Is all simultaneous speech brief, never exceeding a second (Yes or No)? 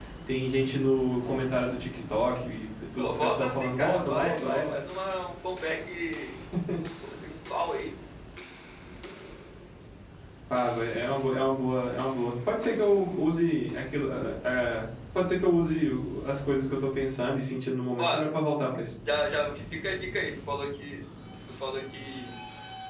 No